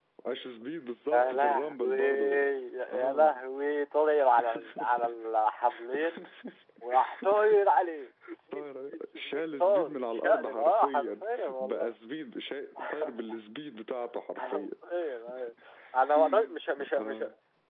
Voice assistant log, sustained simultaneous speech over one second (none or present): present